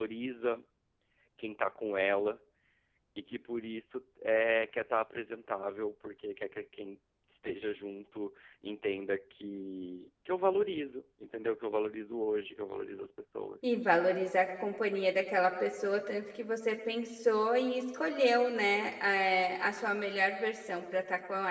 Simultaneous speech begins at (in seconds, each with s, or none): none